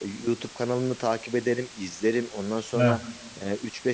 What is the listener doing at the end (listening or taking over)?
listening